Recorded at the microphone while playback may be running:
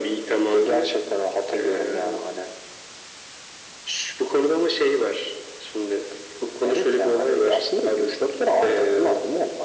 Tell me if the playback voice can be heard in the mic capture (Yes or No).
Yes